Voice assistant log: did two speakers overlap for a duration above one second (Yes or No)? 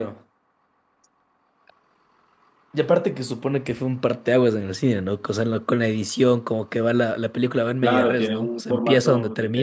Yes